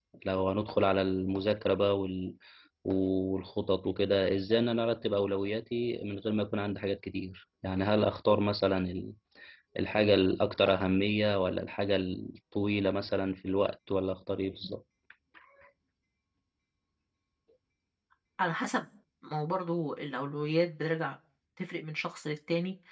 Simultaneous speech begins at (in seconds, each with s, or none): none